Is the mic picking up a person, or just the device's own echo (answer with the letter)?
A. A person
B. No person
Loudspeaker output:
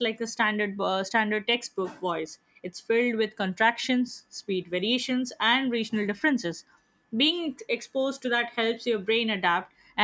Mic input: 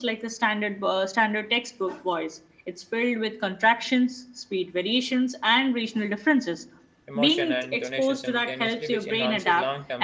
A